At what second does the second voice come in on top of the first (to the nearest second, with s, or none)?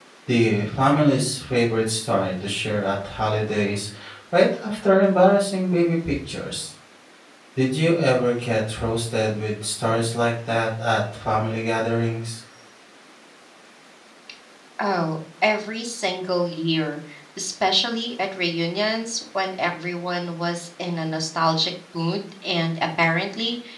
none